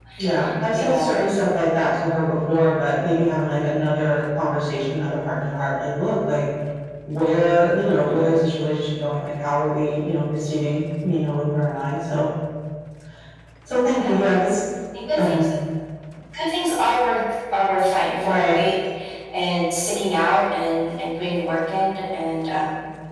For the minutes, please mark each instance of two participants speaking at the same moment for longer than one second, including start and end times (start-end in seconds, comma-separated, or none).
none